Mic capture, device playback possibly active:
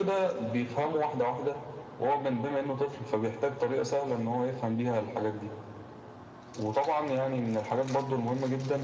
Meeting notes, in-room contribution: none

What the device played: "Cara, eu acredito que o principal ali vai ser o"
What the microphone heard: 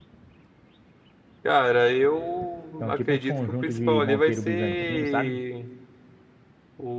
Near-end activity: present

